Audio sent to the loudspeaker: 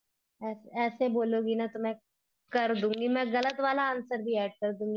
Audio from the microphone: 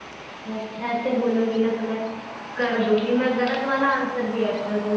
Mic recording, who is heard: echo only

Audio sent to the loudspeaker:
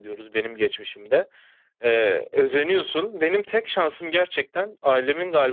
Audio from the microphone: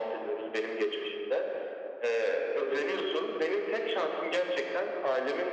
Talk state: echo only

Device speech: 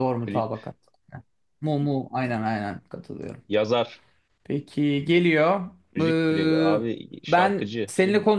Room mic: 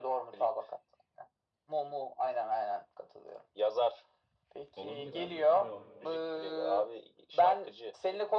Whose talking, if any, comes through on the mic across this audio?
both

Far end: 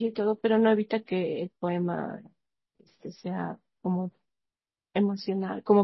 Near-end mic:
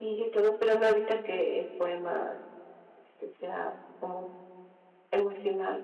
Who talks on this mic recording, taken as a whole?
echo only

